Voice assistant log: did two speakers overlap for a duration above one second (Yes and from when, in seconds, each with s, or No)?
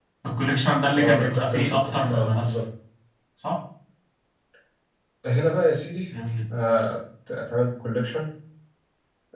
Yes, from 1.0 s